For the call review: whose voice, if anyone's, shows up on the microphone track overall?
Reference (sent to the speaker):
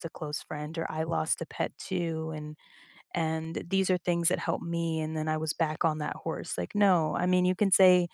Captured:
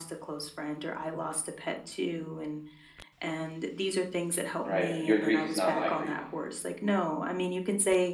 both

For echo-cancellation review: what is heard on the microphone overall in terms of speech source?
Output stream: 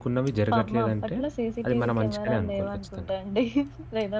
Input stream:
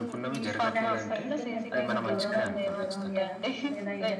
both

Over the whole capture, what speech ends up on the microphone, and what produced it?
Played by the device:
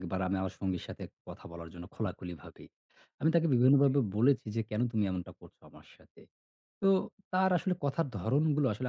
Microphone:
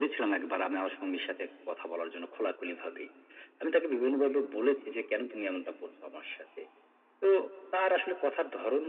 echo only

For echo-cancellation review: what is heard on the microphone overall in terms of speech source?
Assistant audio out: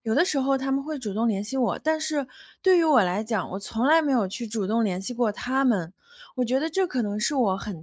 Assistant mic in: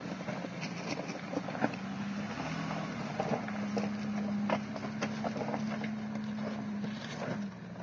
neither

